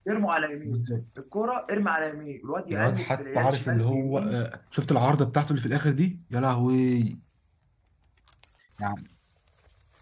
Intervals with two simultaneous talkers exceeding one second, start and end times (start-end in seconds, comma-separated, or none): 2.7-4.4